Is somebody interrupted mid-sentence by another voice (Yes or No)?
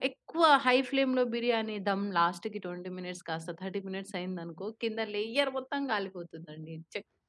No